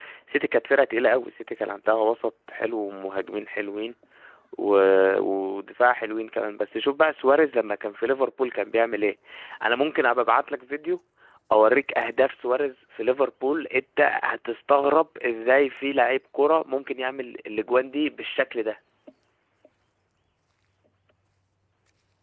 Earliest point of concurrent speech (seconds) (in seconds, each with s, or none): none